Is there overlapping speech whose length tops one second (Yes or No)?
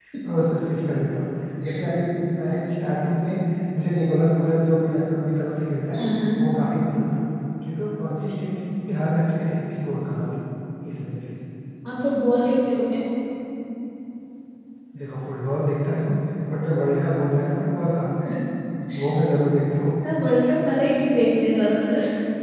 No